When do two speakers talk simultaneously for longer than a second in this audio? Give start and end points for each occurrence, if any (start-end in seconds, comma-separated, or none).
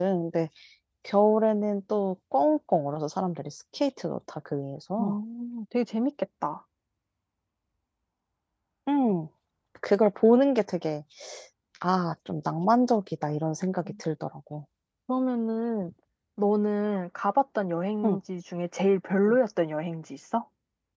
none